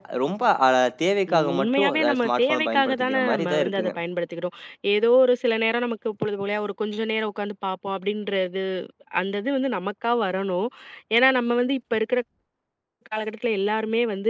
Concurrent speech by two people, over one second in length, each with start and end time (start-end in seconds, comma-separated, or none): 1.3-3.9